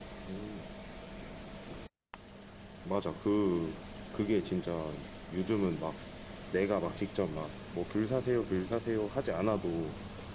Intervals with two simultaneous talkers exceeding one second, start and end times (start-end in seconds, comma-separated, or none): none